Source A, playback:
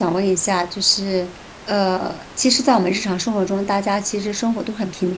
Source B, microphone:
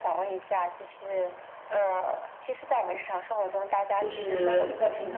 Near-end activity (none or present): present